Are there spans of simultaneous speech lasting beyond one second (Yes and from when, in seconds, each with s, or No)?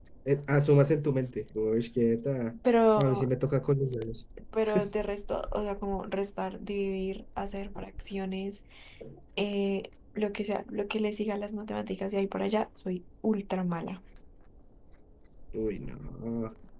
No